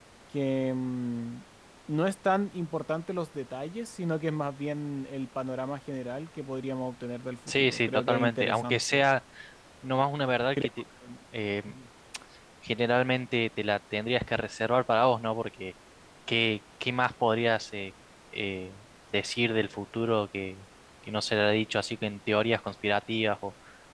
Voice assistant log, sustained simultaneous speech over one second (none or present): present